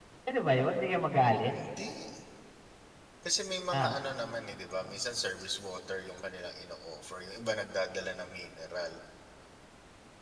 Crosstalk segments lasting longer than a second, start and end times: none

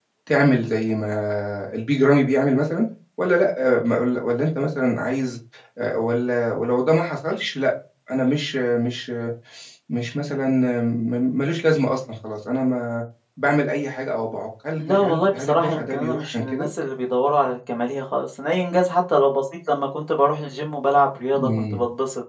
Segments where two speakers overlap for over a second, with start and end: 14.8-16.7

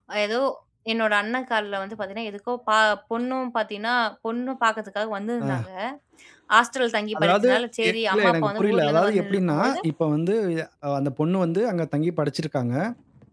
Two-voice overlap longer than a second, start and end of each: 7.9-9.6

